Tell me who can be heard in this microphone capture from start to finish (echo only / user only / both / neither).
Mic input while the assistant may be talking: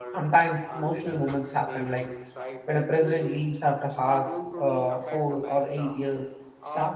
both